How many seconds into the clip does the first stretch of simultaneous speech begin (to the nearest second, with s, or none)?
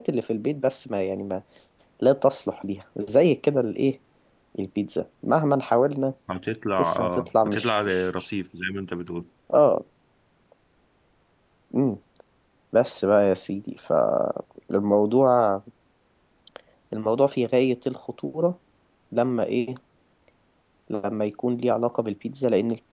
7 s